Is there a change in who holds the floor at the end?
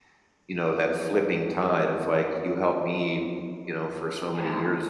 No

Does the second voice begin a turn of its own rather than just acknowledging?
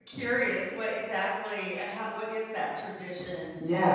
Yes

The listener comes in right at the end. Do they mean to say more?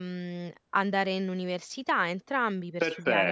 Yes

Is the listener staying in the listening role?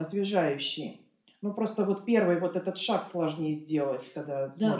No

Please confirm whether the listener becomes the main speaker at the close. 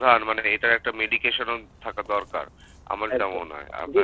Yes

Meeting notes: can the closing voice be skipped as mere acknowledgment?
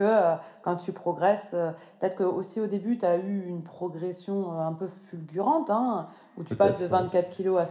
Yes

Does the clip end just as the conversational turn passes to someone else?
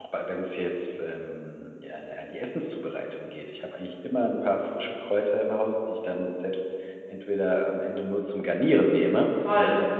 Yes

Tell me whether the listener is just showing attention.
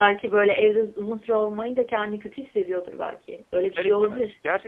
No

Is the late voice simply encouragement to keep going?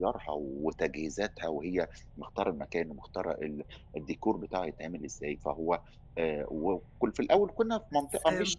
Yes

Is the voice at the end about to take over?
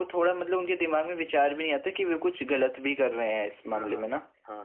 Yes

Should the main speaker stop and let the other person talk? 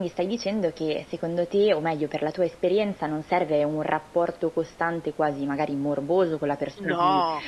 No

